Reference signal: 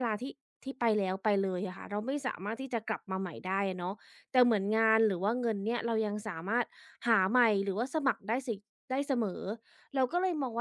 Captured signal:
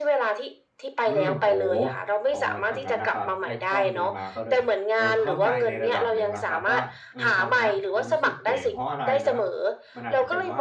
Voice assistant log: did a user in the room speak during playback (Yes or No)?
Yes